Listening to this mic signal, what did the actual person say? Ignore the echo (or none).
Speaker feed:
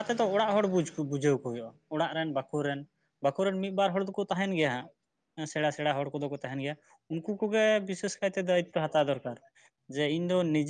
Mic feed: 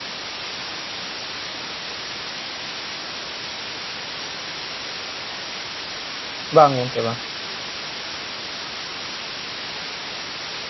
ᱵᱟᱝ ᱜᱚᱝᱠᱮ ᱵᱟᱝ